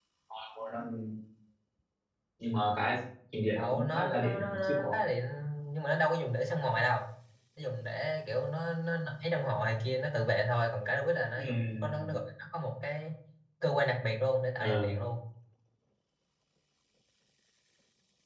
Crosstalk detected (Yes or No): Yes